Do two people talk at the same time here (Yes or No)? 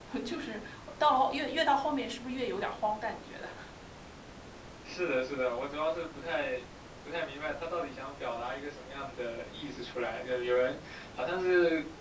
No